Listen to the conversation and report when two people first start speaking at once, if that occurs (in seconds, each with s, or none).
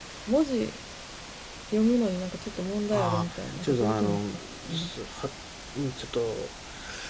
2.9 s